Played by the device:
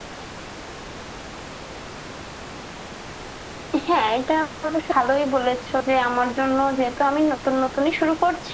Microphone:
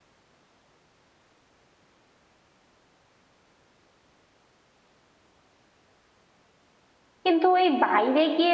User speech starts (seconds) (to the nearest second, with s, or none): 7 s